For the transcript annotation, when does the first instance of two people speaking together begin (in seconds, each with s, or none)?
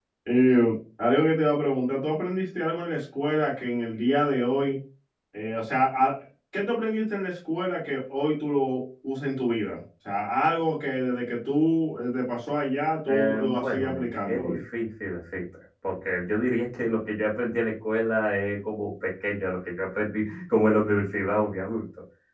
13.1 s